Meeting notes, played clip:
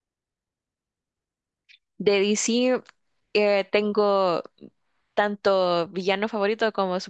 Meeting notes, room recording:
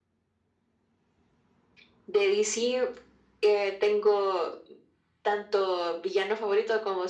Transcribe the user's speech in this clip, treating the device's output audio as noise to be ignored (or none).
none